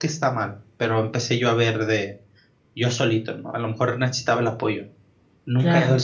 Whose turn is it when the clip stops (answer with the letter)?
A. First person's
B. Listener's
A